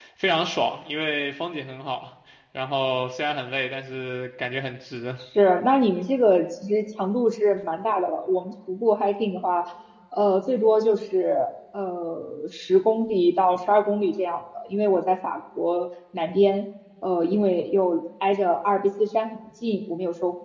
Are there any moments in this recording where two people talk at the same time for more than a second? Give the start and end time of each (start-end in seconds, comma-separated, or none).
none